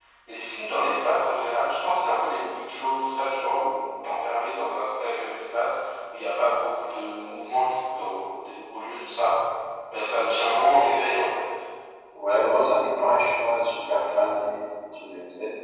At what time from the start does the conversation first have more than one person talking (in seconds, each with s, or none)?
none